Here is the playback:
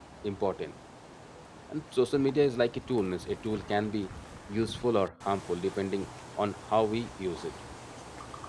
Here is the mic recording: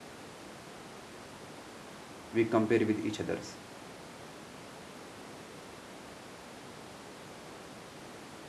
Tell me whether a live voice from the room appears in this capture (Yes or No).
Yes